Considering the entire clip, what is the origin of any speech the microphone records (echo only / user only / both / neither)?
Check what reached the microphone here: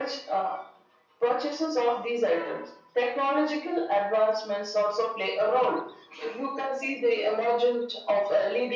echo only